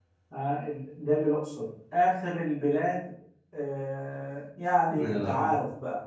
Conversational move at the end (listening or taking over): listening